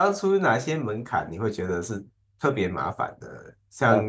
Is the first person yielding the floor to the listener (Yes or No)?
No